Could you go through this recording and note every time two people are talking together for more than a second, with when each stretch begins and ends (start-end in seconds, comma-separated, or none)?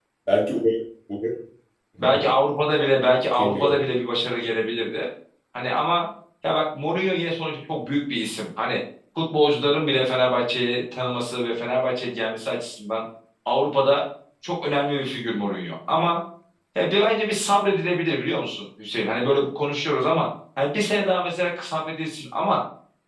none